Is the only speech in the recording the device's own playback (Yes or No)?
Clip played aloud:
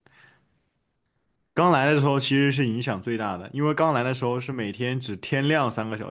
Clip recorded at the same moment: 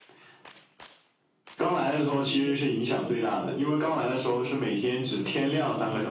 No